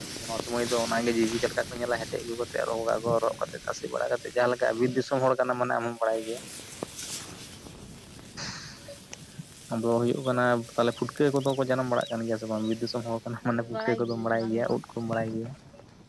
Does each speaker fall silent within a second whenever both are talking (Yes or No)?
No